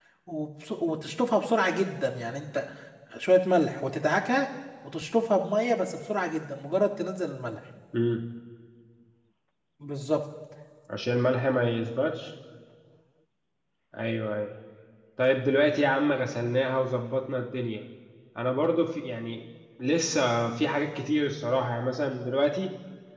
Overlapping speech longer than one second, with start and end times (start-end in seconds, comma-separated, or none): none